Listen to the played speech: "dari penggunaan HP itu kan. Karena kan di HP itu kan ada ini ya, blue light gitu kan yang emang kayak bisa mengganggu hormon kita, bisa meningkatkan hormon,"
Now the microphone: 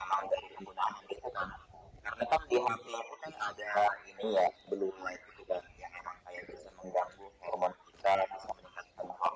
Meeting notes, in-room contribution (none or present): none